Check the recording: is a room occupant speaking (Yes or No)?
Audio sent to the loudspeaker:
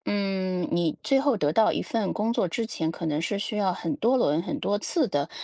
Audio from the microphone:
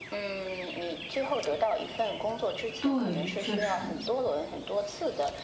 Yes